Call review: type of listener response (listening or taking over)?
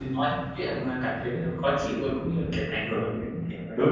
taking over